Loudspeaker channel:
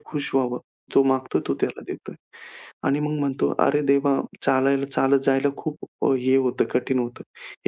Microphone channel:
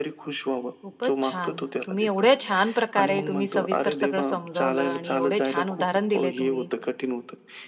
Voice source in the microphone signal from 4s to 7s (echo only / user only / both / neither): both